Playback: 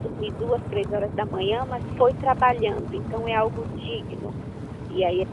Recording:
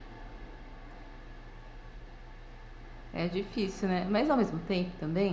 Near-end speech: present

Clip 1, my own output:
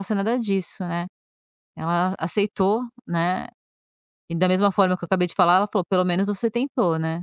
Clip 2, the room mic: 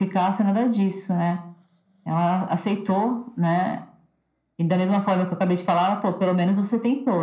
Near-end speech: none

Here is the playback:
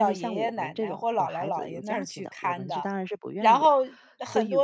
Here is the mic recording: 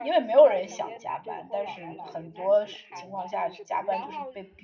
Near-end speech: present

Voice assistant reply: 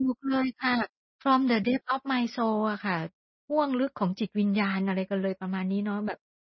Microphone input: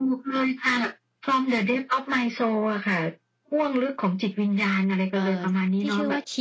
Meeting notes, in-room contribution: present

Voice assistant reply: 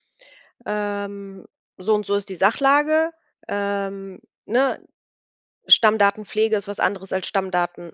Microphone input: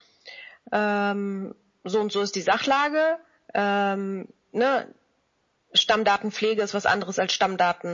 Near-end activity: none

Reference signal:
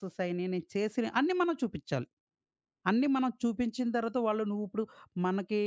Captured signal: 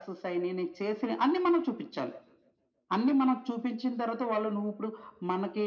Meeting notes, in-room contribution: none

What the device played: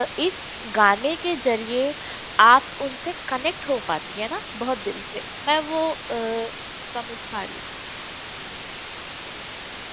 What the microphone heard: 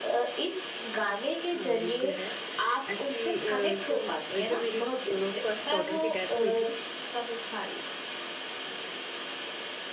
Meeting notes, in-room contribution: present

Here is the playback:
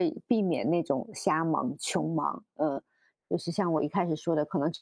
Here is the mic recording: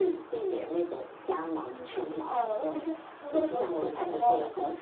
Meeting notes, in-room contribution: present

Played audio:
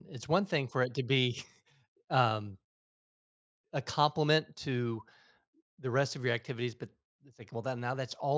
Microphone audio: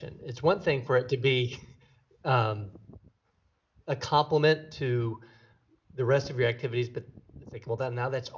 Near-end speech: none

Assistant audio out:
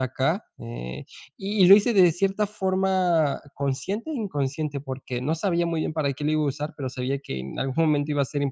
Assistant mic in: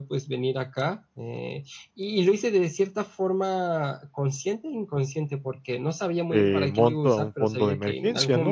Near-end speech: present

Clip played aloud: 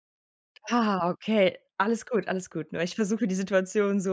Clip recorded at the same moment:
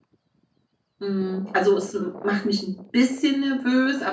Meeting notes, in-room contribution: present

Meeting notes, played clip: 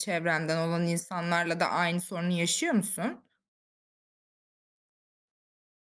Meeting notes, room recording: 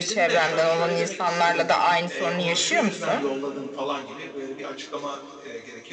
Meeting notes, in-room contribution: present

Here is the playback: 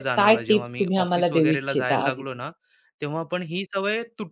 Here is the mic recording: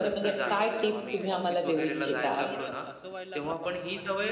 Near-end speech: present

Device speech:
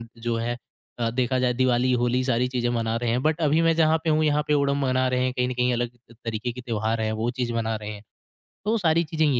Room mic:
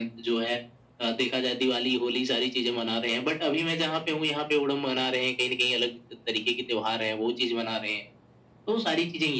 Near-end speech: none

